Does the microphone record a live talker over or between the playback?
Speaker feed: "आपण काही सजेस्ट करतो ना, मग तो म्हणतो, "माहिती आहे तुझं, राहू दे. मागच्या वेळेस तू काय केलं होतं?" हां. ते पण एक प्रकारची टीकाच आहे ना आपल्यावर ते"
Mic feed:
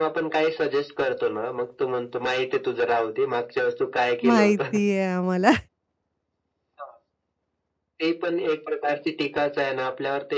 Yes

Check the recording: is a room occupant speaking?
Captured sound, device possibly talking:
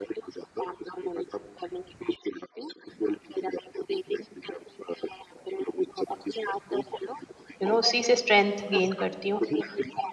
Yes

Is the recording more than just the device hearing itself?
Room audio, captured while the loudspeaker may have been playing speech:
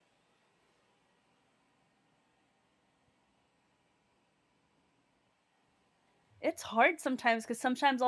Yes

